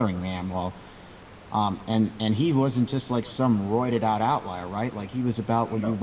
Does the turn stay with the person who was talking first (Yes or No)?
Yes